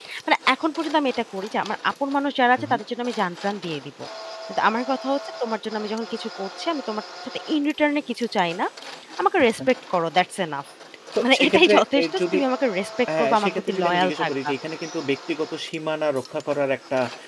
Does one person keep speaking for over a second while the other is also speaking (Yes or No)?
Yes